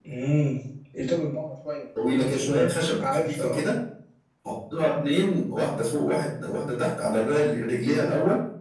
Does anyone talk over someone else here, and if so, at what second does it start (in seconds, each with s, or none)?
1.9 s